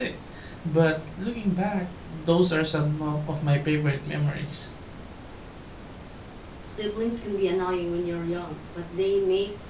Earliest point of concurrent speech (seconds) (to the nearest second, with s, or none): none